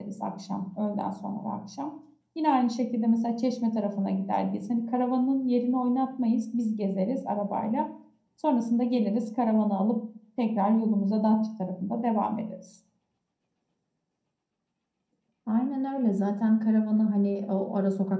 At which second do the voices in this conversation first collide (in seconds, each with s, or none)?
none